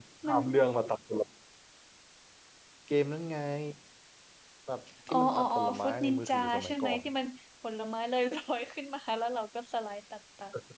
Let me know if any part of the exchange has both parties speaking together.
Yes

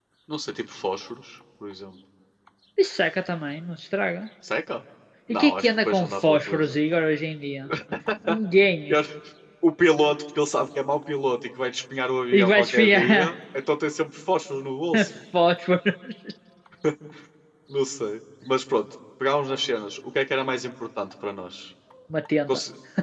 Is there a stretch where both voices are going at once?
Yes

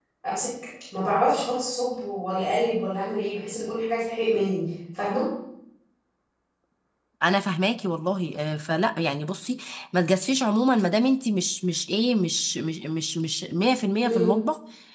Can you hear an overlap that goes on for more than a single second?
No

